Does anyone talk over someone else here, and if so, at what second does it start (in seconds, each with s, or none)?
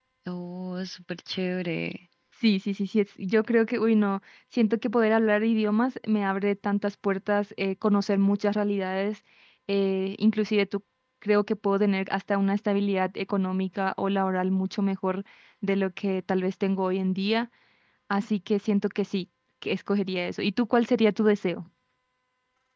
none